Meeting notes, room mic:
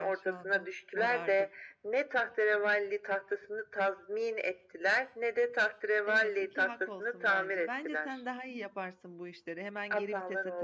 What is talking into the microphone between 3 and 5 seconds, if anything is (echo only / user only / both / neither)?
echo only